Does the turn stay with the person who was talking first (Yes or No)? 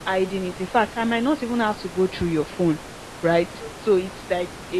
Yes